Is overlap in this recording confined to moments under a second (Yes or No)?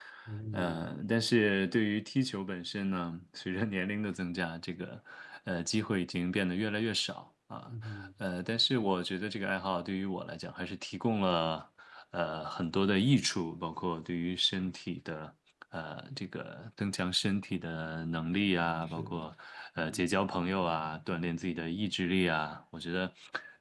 Yes